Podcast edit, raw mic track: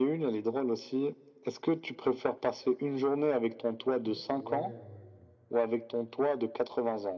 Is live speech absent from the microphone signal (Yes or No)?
No